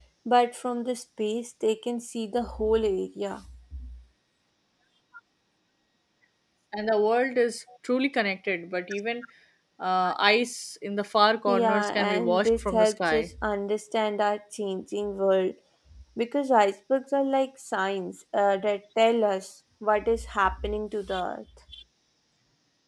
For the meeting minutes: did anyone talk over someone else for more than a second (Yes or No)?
Yes